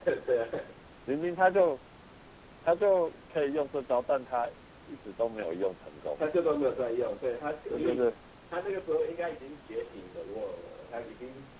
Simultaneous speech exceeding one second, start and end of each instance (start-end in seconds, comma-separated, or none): none